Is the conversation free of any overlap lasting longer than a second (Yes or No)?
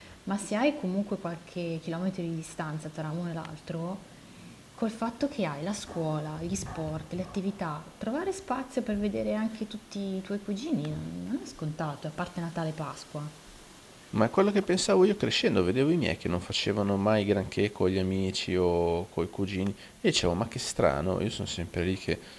Yes